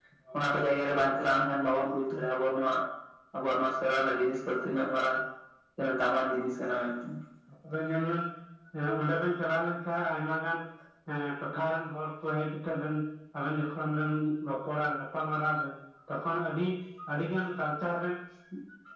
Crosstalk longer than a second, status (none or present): none